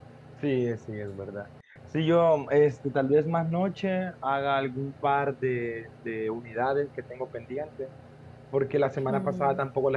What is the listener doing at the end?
listening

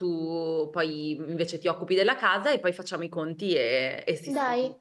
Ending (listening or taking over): taking over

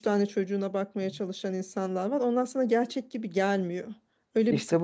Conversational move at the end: taking over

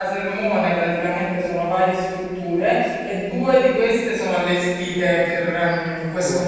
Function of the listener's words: listening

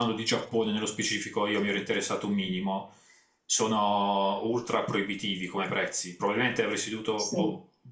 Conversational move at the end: listening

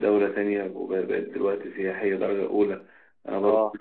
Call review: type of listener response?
listening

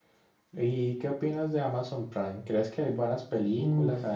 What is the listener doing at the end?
taking over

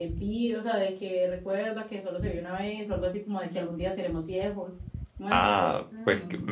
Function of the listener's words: taking over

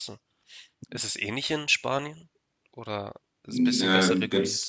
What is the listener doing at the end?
taking over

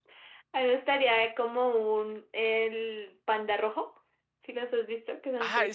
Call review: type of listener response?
taking over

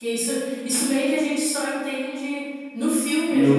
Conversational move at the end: listening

